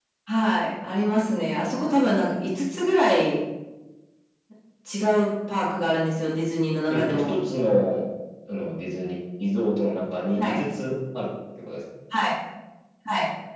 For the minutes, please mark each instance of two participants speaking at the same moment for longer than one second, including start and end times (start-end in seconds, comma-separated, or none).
none